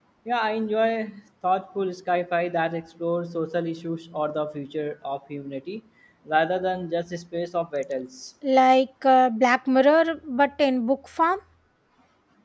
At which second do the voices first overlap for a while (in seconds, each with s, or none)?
none